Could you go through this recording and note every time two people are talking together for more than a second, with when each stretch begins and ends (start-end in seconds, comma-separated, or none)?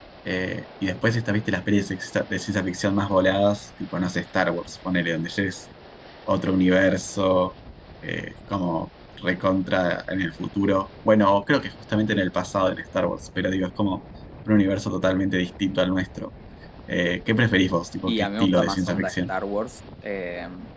18.1-19.3